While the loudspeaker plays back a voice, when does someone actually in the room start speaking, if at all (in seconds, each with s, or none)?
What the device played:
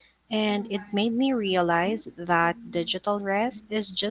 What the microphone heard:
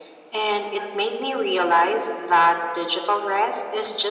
none